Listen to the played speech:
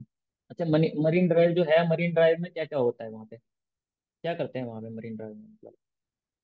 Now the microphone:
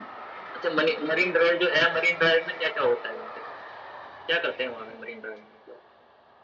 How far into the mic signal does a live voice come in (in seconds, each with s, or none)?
none